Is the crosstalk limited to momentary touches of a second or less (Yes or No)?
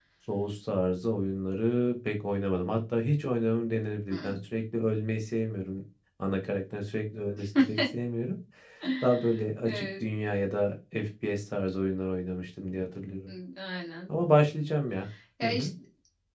Yes